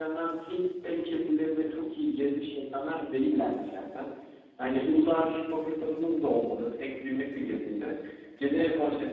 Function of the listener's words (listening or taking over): listening